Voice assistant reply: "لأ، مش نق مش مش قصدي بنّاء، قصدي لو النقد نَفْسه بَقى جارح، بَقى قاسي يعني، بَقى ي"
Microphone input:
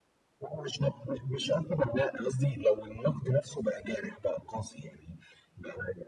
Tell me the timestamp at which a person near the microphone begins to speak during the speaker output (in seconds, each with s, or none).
none